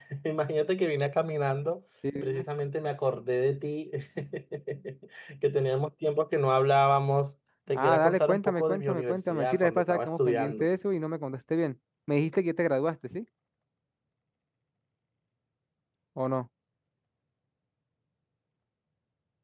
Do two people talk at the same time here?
Yes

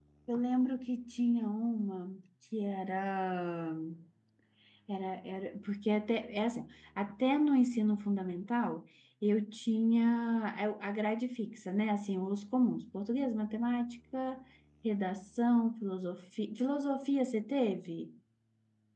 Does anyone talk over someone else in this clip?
No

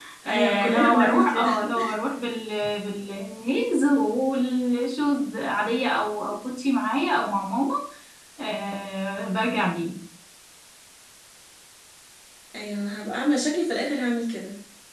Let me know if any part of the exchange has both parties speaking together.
Yes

